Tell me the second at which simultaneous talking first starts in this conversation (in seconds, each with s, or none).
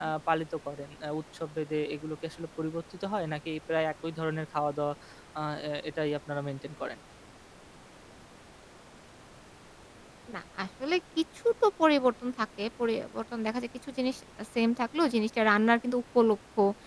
none